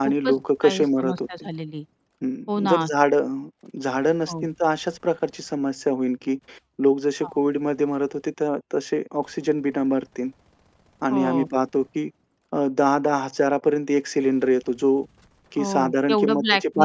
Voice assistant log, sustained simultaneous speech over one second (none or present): present